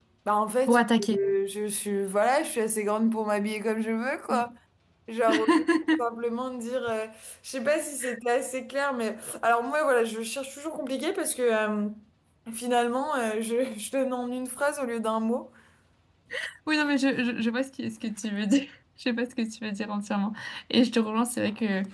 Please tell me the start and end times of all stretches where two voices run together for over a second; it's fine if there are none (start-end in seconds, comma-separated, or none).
none